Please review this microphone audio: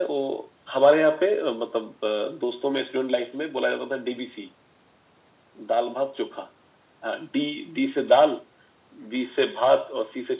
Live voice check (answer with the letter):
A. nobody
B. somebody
A